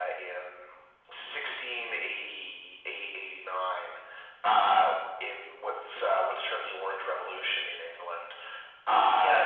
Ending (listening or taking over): taking over